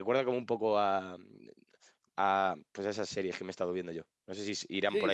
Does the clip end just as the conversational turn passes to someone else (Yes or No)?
Yes